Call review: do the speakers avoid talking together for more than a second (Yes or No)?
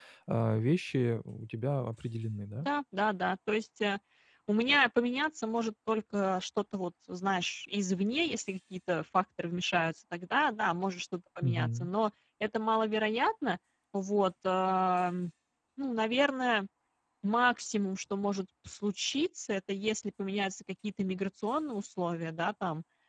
Yes